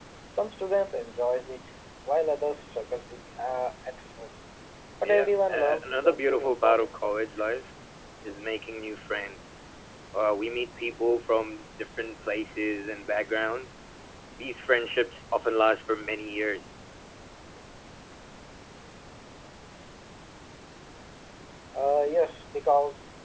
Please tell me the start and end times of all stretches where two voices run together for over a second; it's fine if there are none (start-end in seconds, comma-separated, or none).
5.0-7.4